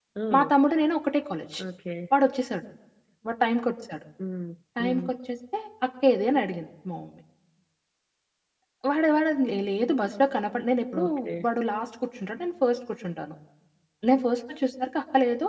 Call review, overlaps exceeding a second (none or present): none